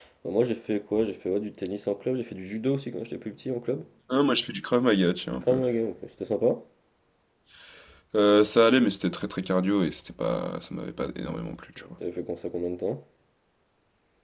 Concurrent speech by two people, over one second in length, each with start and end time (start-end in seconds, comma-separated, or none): none